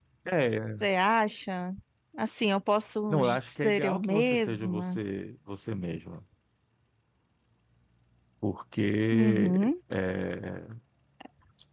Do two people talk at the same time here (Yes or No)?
Yes